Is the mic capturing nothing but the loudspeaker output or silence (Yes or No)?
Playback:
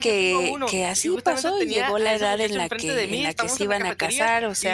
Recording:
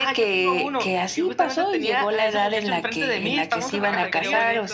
No